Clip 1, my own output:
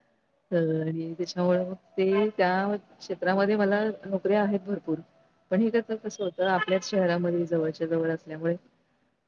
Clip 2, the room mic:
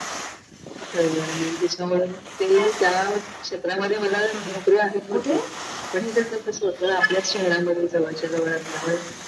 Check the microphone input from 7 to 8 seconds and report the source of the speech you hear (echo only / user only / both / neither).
echo only